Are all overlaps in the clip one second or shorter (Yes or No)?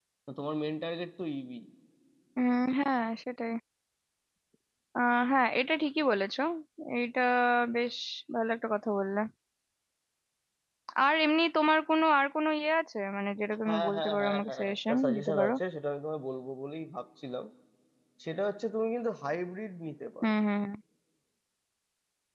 No